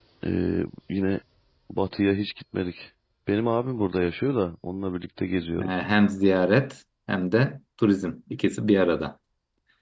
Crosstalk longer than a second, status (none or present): none